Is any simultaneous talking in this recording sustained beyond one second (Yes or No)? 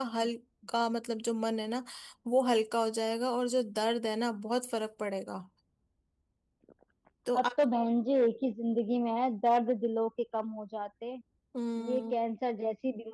No